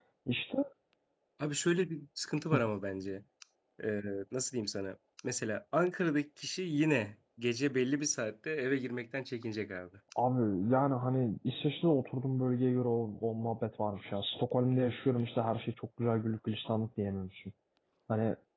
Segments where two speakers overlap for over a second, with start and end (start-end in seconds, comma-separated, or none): none